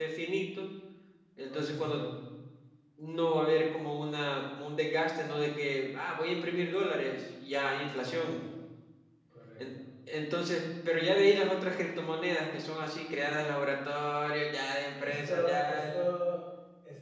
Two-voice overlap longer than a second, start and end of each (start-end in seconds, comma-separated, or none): 14.9-16.1